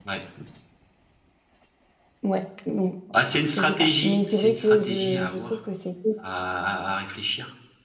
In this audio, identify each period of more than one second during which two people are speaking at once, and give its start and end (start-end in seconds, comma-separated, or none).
3.5-5.5